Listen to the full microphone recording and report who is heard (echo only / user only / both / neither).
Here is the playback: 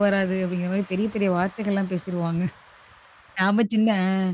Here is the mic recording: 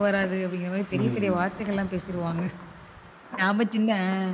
both